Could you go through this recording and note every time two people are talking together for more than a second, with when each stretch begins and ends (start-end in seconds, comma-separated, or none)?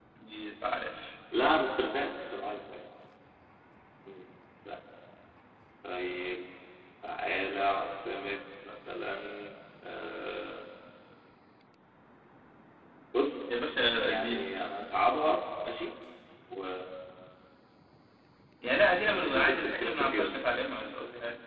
19.0-20.4